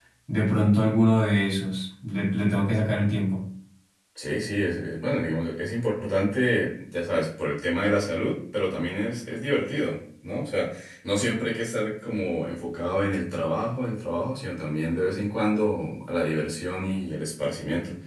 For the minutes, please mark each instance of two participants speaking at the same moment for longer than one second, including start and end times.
none

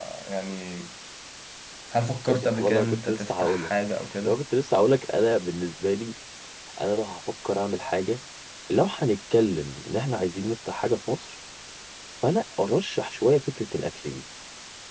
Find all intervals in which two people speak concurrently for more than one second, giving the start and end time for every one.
2.4-3.7

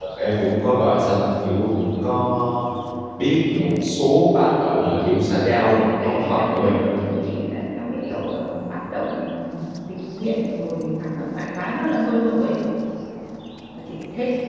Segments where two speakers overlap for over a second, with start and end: 5.6-6.9

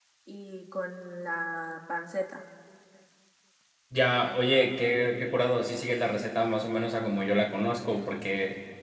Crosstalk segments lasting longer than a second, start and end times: none

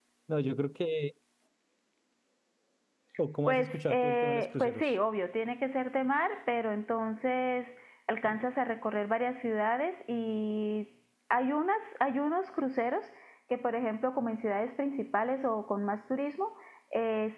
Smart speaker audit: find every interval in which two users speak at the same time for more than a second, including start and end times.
3.5-4.9

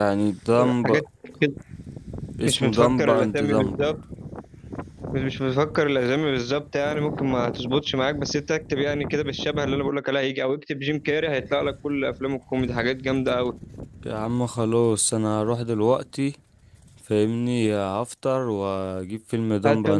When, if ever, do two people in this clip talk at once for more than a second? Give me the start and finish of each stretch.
2.5-3.8

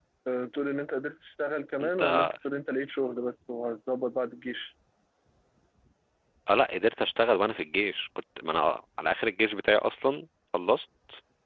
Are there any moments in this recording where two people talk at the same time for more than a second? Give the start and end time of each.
none

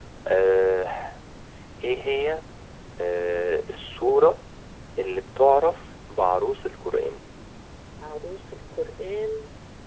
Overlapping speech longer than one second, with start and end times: none

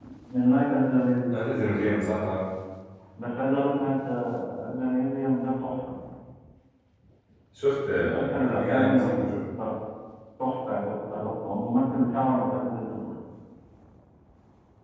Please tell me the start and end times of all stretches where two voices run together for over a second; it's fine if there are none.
7.9-9.3

